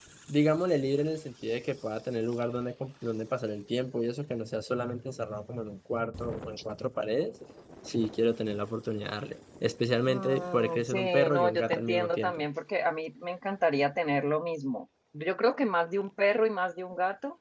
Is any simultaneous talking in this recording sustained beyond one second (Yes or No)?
Yes